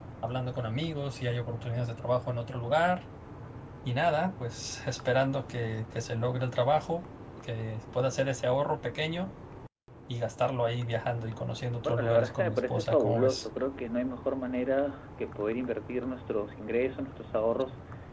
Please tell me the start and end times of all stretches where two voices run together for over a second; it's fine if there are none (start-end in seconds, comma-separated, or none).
11.8-13.5